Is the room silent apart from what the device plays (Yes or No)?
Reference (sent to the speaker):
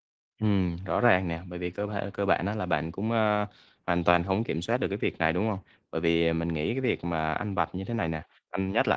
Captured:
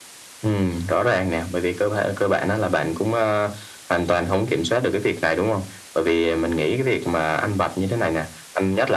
Yes